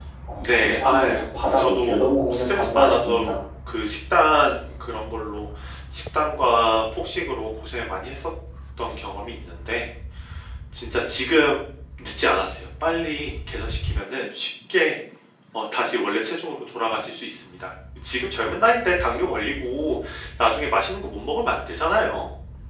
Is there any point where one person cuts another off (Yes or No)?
Yes